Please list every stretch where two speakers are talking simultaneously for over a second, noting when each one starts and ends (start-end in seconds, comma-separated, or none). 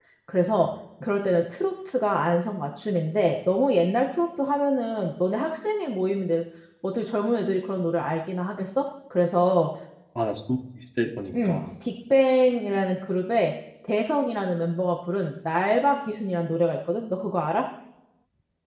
none